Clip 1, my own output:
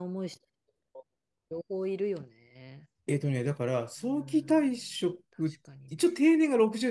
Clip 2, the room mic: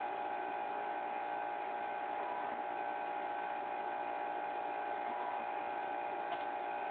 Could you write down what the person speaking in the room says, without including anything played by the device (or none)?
none